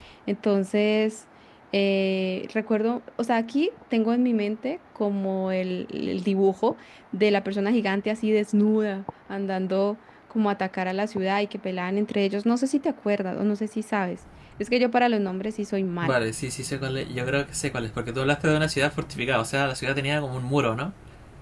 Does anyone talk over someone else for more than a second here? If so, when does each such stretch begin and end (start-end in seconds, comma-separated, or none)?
none